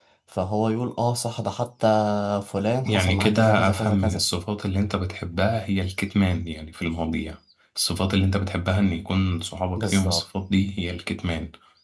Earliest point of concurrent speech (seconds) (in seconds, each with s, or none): 2.9 s